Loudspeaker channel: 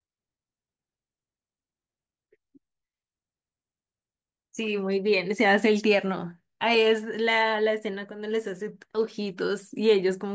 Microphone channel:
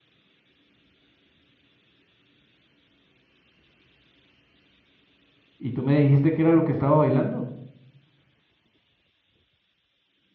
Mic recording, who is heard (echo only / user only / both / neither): user only